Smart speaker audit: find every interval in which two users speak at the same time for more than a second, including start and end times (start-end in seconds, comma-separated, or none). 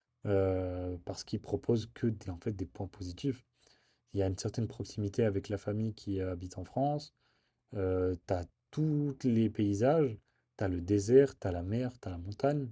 none